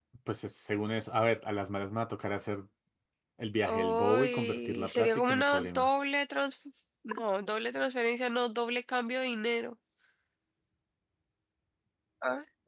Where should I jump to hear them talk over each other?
3.6 s

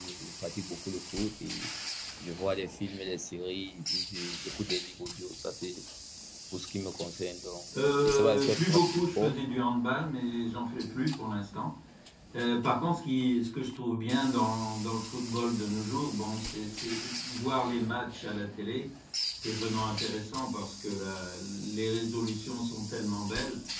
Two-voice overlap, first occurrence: 8.0 s

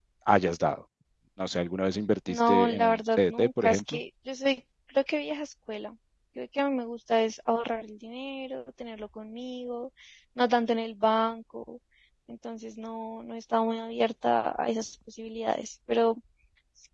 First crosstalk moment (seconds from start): 2.3 s

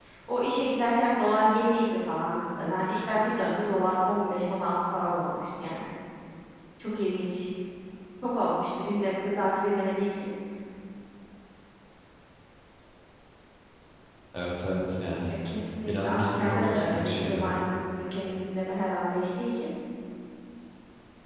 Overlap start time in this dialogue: 15.9 s

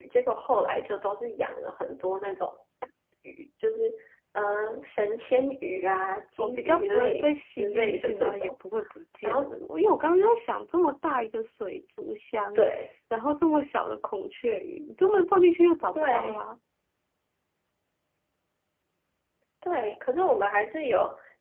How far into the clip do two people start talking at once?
6.4 s

